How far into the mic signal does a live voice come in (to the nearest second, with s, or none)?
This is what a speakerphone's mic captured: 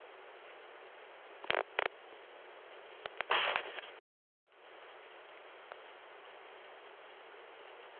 none